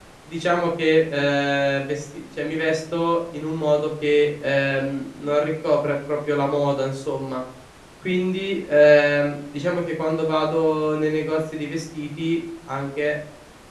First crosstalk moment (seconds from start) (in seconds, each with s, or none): none